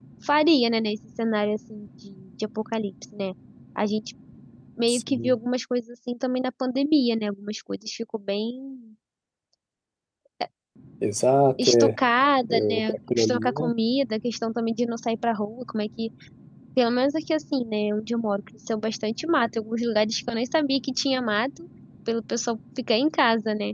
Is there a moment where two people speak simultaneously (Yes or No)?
Yes